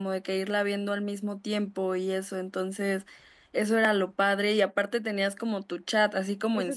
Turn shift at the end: Yes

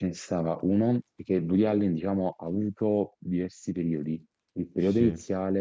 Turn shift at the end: No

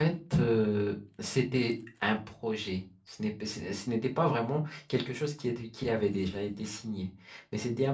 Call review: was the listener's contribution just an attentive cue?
Yes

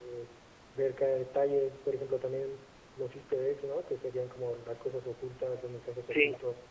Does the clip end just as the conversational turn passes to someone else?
No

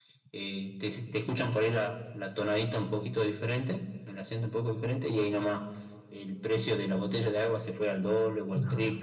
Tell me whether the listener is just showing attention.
Yes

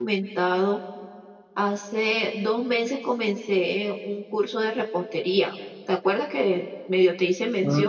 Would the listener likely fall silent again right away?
No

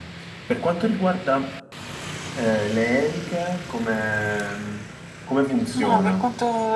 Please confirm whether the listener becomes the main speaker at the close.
Yes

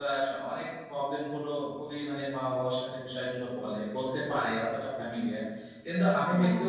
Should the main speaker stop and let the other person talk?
No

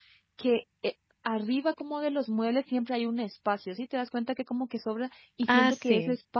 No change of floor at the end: Yes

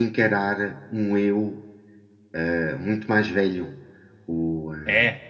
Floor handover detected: No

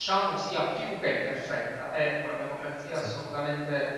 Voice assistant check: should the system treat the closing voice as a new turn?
No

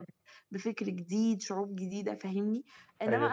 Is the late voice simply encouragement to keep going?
Yes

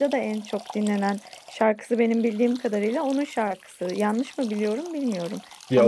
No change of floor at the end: No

